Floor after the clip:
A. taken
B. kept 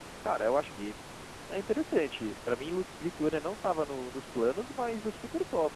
B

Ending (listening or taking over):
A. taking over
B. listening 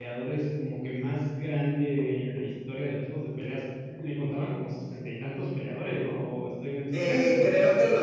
A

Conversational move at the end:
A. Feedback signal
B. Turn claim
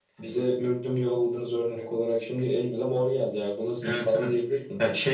B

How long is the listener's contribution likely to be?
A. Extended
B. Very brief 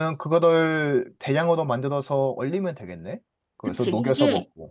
A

